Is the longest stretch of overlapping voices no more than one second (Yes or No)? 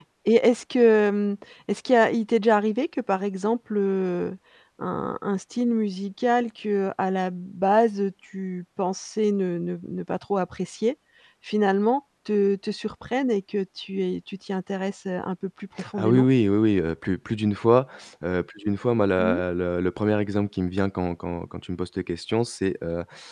Yes